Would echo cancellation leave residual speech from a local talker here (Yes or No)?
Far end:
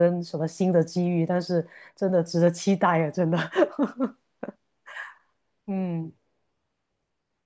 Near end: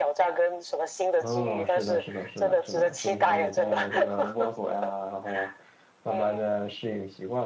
Yes